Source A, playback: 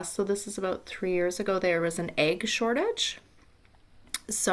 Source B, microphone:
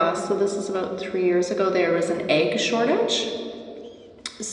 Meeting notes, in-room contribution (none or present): none